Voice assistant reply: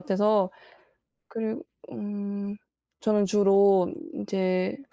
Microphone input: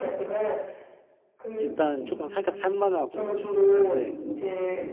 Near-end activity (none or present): present